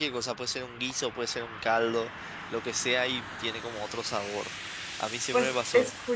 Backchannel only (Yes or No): No